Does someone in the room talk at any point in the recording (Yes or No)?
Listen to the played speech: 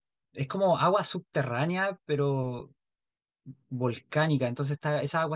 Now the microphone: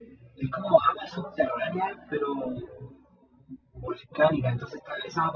No